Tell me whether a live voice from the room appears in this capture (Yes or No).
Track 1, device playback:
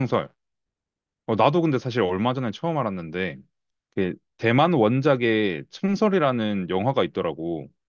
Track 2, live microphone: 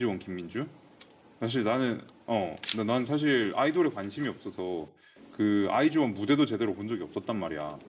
Yes